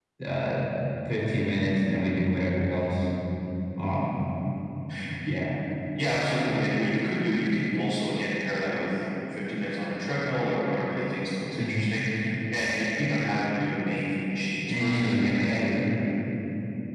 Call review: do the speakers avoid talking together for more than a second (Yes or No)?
No